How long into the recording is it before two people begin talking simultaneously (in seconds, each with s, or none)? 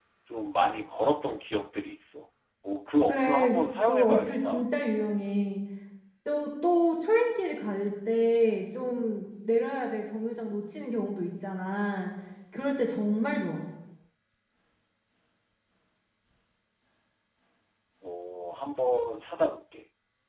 3.1 s